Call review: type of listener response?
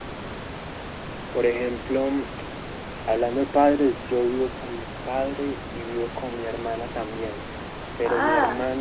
listening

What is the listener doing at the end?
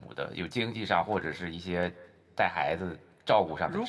taking over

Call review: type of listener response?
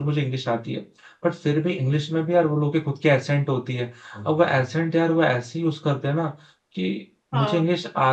listening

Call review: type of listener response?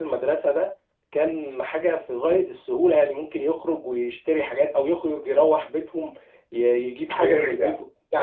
taking over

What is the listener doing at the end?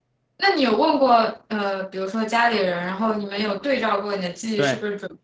taking over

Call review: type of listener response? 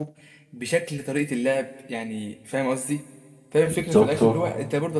listening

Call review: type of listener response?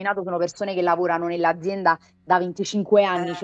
listening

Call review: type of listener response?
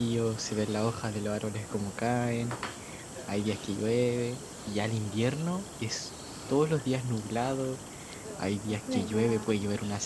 listening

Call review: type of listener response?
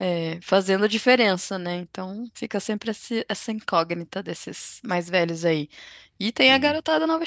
listening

